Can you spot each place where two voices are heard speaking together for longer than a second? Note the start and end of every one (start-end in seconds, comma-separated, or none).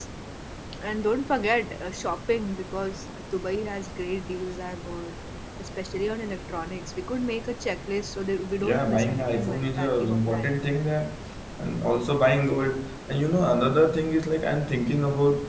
8.6-10.6